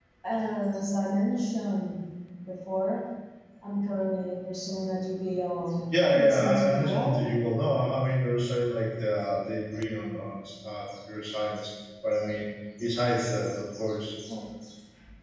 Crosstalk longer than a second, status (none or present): present